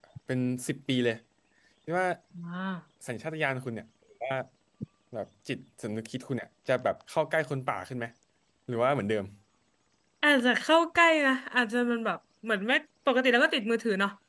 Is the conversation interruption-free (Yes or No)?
Yes